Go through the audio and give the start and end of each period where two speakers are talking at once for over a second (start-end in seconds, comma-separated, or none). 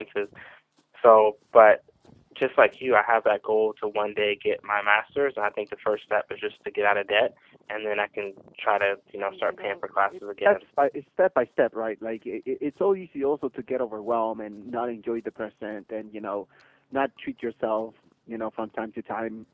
9.2-10.7